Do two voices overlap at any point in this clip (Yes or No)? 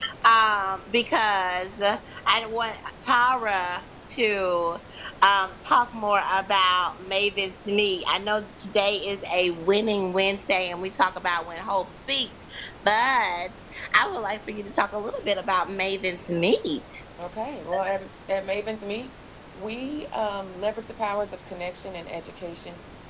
No